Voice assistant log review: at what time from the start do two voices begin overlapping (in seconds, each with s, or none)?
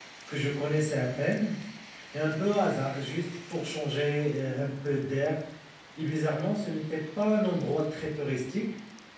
none